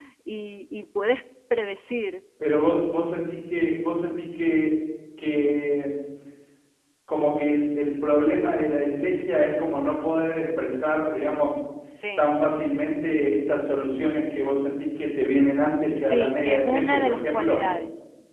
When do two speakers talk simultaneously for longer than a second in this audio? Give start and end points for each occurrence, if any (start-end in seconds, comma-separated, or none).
15.8-17.6